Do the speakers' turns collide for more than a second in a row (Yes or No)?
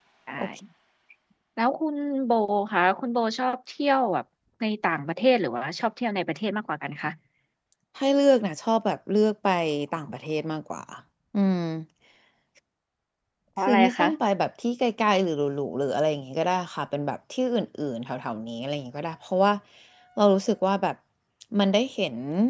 No